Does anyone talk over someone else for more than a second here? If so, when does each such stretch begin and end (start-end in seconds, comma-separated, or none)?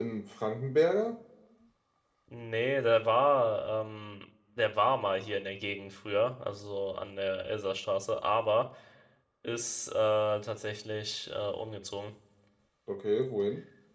none